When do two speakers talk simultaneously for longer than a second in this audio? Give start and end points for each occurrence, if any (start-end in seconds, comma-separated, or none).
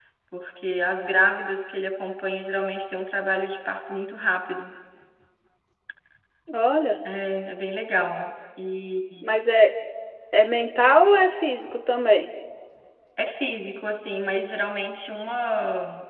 none